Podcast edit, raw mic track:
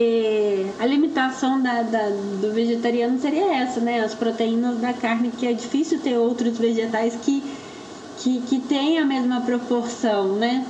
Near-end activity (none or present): none